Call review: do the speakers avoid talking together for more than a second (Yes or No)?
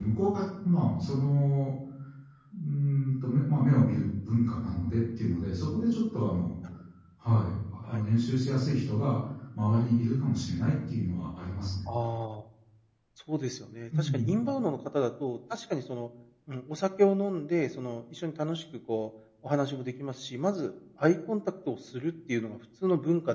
Yes